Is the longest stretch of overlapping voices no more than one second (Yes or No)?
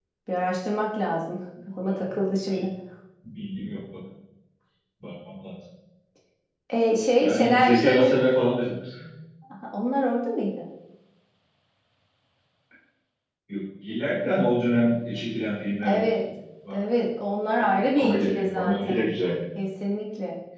No